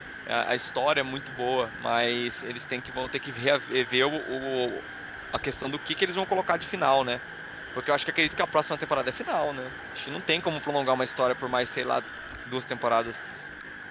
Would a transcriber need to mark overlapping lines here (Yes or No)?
No